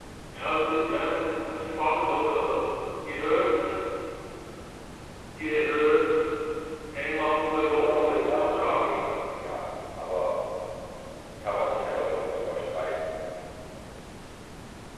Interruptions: present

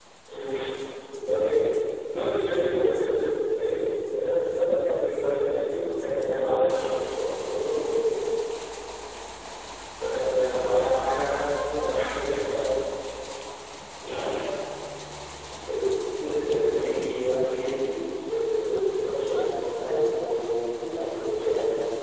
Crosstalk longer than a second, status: none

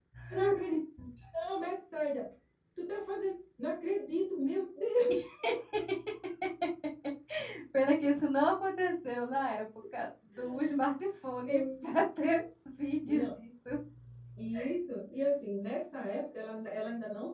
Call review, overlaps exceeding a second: none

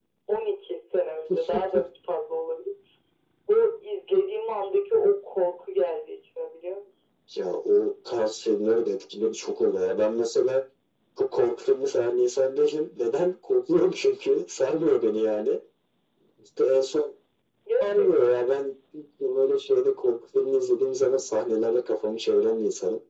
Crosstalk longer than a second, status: none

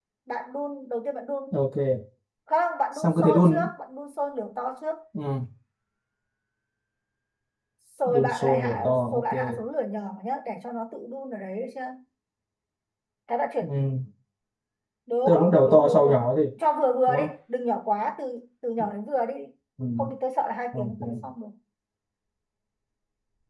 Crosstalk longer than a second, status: present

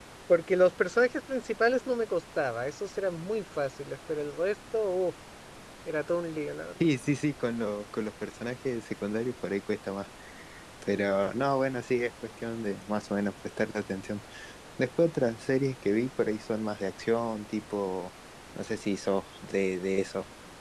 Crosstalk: none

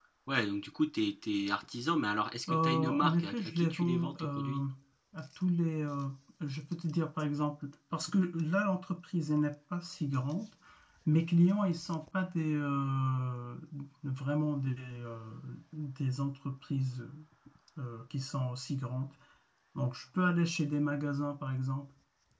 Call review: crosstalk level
present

